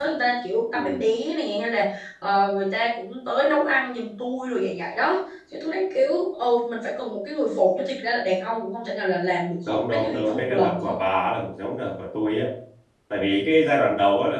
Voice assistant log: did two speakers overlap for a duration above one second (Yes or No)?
Yes